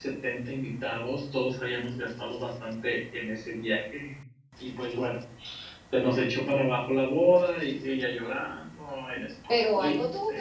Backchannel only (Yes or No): No